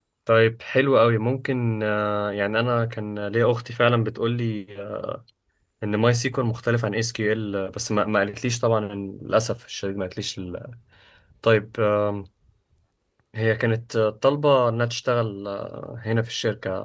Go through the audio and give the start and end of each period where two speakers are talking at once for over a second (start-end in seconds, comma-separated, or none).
none